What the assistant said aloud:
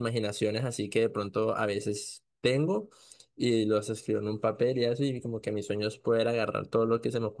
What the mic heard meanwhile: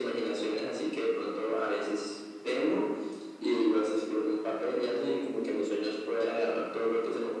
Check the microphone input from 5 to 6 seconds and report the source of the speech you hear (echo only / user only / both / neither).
echo only